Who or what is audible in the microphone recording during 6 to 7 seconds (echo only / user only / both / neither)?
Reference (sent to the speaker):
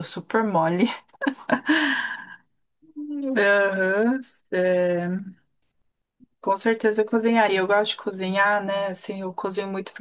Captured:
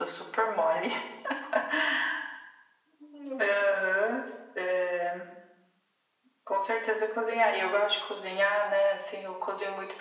echo only